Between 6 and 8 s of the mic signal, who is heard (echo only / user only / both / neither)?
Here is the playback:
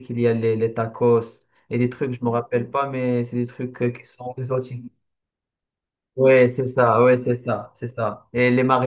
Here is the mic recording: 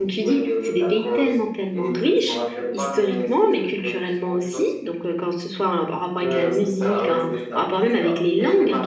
both